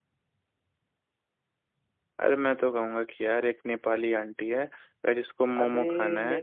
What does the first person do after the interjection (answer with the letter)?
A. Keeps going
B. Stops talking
B